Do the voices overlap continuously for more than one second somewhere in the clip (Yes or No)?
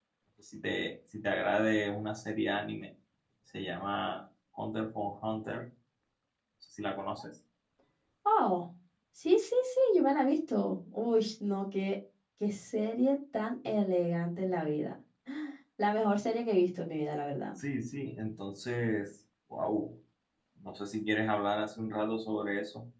No